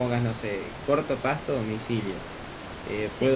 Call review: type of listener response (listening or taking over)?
listening